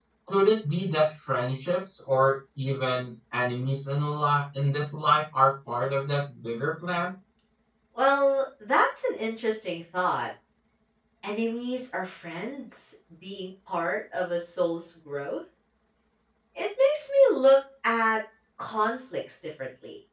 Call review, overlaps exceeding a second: none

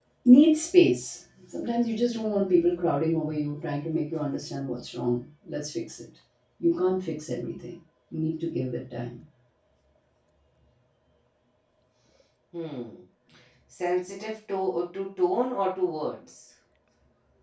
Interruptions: none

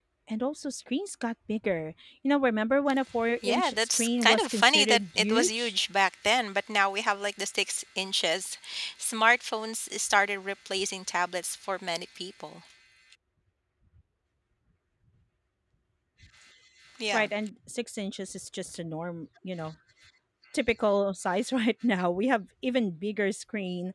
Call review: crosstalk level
present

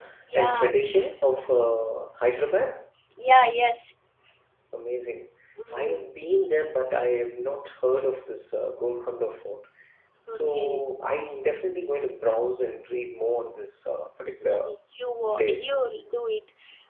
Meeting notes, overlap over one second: none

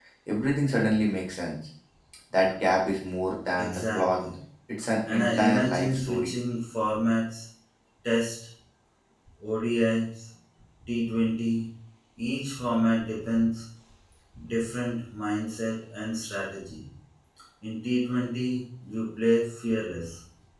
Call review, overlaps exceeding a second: present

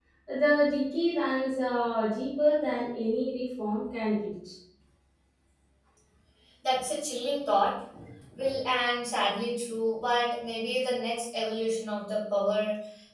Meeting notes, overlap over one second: none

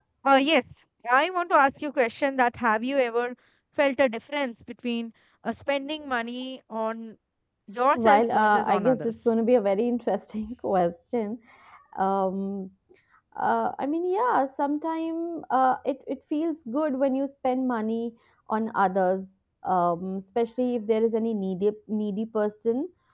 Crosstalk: present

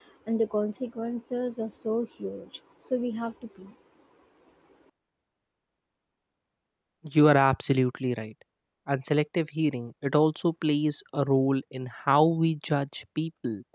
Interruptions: none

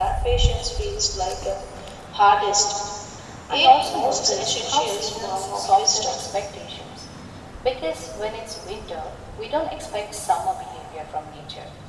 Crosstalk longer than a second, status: present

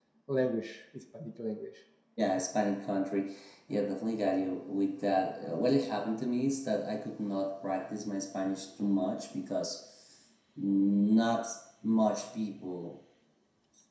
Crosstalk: none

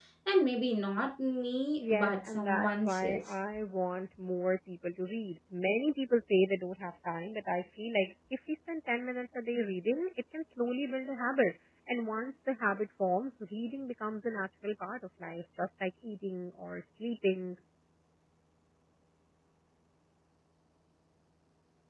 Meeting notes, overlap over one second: present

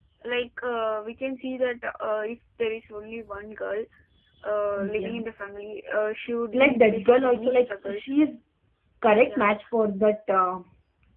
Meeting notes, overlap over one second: present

